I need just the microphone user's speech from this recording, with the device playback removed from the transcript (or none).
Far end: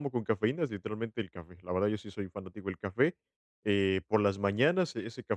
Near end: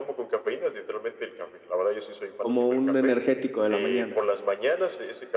como un energético de la mañana.